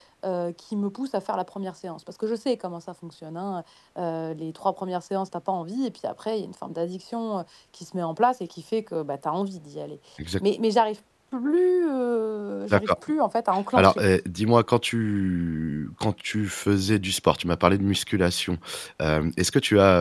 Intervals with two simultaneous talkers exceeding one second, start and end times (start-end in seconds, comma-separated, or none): none